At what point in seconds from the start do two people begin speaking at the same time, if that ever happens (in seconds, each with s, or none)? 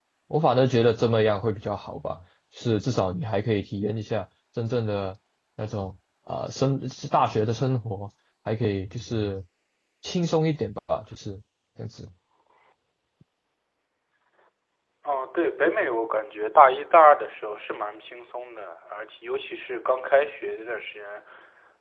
none